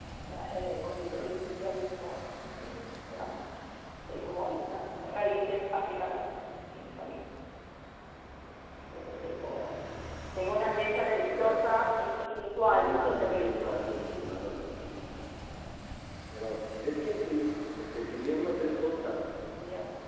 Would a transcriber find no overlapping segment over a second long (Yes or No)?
No